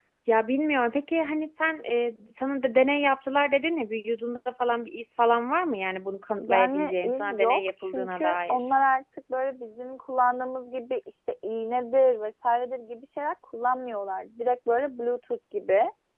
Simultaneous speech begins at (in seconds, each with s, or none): 6.4 s